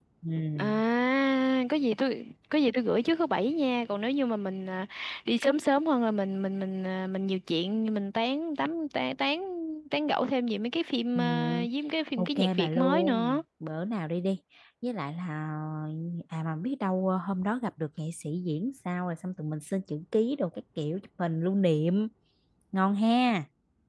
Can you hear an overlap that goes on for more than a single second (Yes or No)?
Yes